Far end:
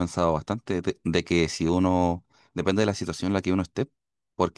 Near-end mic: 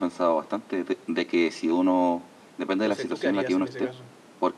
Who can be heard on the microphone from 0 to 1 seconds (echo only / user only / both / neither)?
echo only